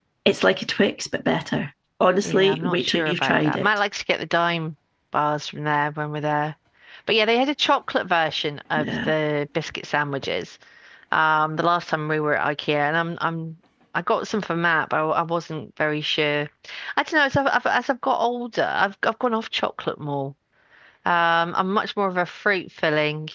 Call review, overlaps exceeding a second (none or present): present